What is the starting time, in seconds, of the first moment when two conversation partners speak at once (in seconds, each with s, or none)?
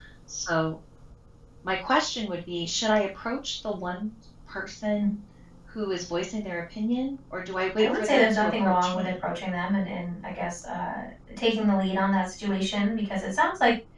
7.8 s